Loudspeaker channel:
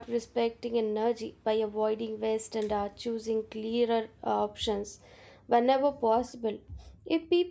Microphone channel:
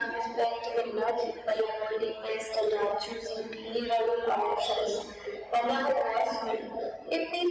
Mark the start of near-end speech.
none

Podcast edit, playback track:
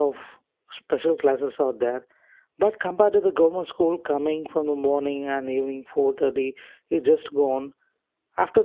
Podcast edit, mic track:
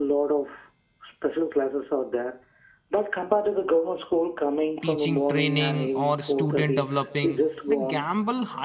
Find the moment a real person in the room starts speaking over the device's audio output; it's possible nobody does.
4.8 s

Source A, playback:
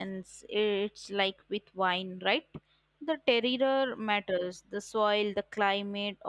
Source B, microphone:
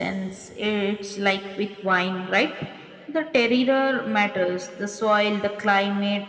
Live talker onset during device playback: none

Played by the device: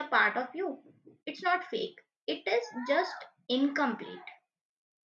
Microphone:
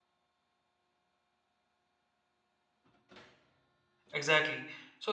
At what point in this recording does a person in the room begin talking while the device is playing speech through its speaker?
4.1 s

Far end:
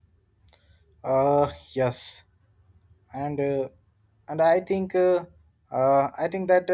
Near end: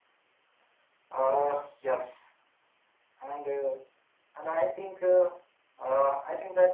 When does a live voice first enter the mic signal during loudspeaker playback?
none

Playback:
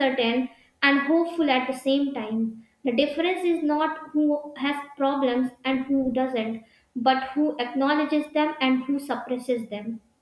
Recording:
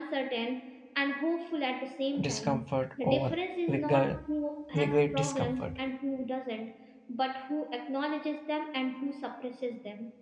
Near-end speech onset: 2.2 s

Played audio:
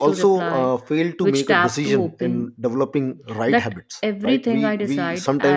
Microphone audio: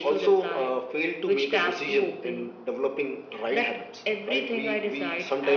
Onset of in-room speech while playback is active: none

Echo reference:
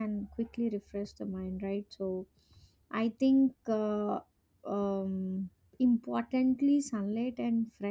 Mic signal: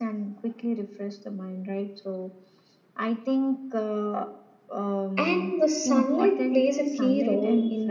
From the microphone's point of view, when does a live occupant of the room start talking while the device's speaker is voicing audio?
5.2 s

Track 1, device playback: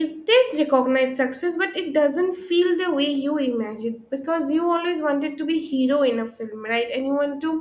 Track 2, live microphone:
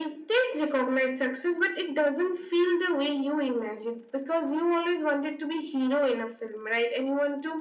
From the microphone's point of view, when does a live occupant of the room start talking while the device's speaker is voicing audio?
none

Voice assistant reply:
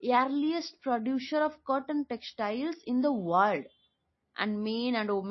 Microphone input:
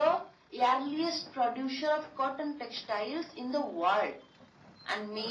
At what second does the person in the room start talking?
none

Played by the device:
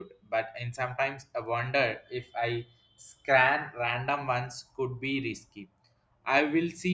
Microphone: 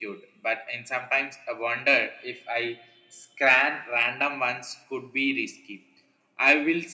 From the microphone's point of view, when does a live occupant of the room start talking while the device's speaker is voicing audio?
none

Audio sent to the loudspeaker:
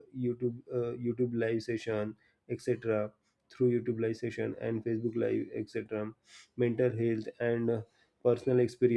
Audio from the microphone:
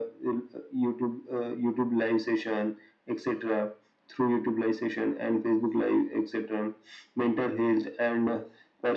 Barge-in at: none

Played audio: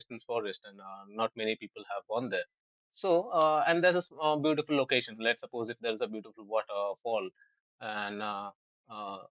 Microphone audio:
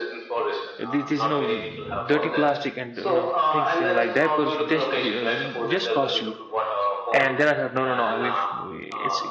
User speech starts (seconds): 0.8 s

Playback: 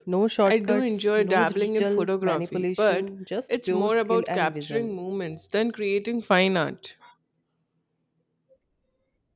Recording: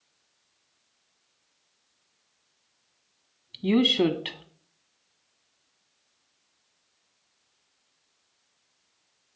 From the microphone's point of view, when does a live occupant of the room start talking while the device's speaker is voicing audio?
3.6 s

